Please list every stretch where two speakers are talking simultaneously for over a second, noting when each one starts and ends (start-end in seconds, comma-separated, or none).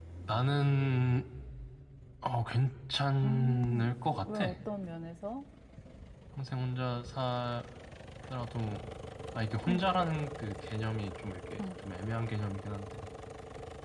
3.2-4.4